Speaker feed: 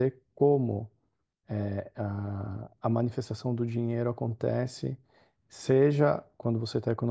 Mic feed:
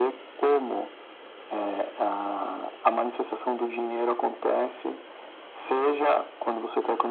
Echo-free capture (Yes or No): No